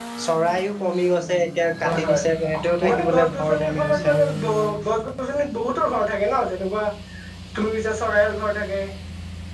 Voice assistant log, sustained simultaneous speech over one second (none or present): present